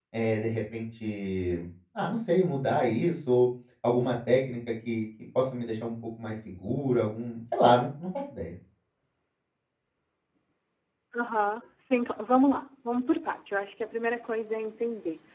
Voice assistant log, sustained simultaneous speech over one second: none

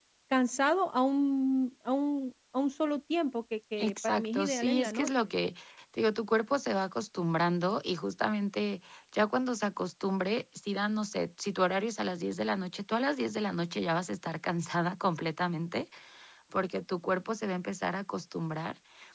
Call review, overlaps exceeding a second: present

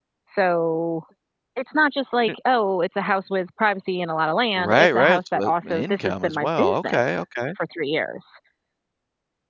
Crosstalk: present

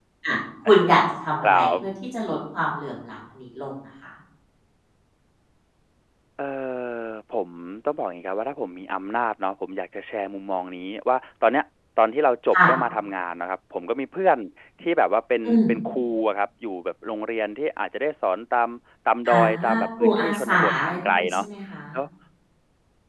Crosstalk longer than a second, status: present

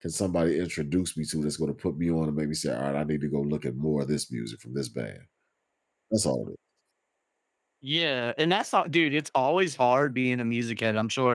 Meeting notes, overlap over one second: none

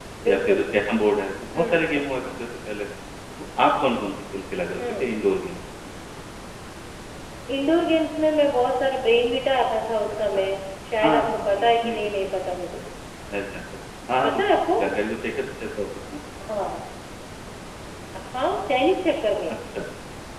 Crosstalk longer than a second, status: present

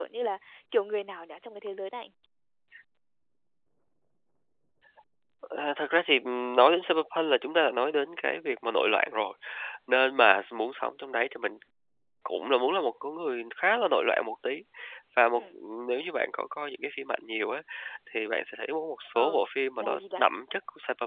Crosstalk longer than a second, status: none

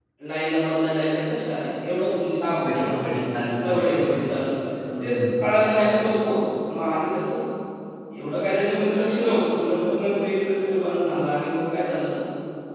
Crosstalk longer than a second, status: none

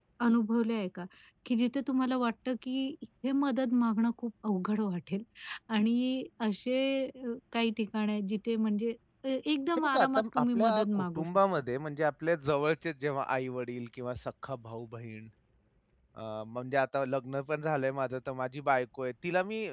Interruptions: present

